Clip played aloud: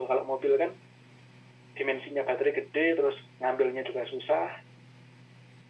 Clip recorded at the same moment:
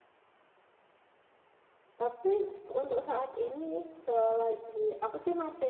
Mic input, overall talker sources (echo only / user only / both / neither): user only